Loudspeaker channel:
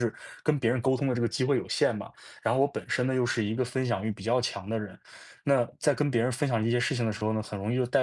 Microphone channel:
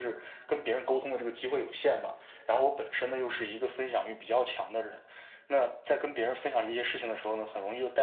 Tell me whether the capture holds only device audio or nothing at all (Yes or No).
Yes